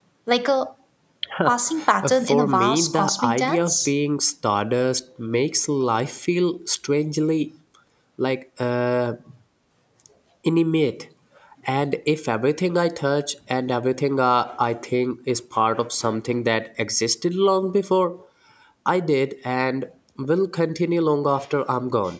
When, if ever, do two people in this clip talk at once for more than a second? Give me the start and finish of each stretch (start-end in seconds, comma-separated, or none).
2.0-3.9